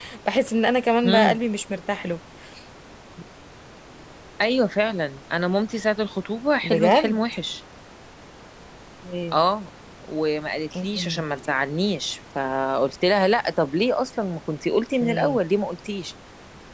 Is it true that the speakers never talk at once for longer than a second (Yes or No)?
Yes